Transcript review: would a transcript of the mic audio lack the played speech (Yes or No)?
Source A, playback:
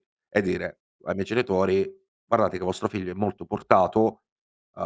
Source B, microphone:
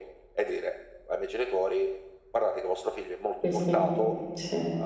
No